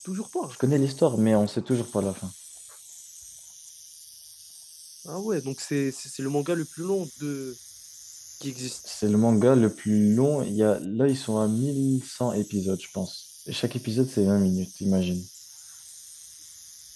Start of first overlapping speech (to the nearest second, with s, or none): none